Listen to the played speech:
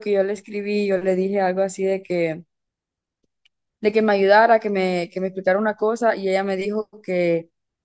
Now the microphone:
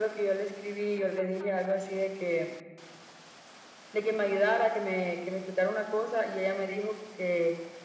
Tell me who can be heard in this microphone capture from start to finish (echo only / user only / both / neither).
echo only